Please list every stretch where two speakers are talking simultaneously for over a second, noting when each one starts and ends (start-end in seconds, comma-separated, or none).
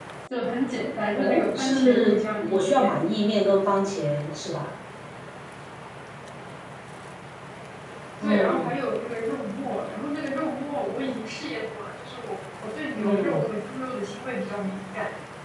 1.2-3.0